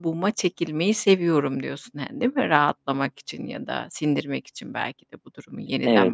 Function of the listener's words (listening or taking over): taking over